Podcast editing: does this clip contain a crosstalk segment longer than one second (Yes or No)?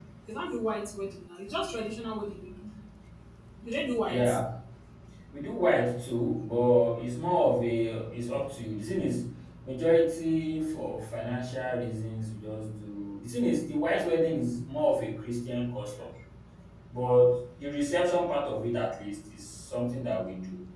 No